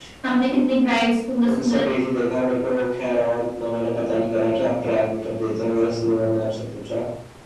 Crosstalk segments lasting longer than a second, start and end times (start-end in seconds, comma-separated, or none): none